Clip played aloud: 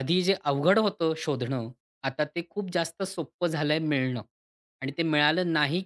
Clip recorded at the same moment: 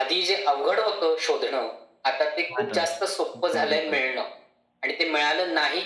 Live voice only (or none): हां ना. बरोबर,